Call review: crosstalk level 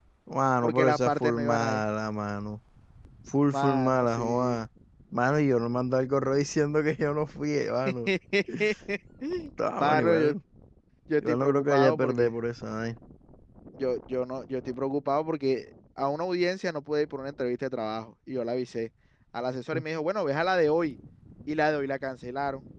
present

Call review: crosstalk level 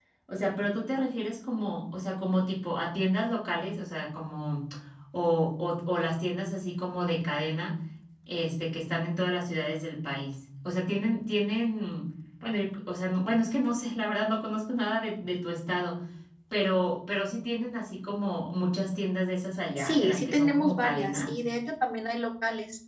present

